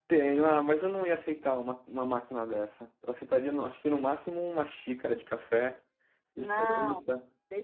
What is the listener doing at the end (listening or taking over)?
taking over